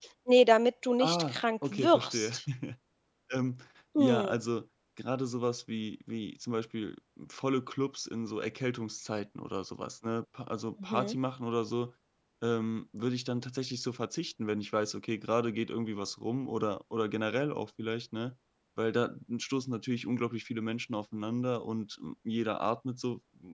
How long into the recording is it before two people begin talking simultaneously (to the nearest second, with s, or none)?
1 s